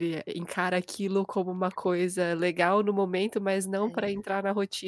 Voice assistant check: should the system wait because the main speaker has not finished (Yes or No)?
Yes